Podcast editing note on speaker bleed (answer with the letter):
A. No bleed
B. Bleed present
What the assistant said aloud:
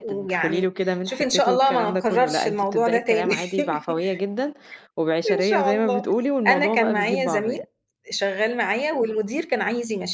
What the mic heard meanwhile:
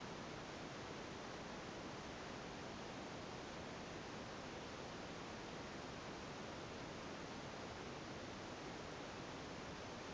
A